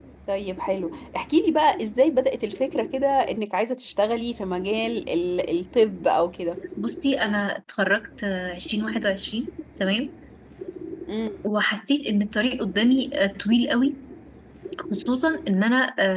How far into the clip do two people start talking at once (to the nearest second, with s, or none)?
none